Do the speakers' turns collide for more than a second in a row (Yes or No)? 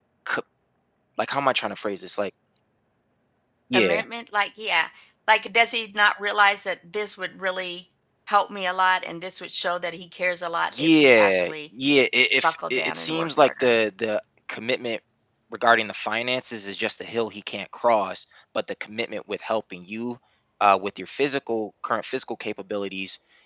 Yes